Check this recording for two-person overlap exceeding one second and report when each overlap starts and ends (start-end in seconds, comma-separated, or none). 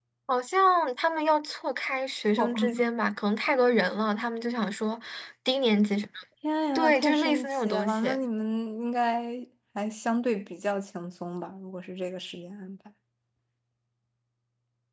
6.8-8.0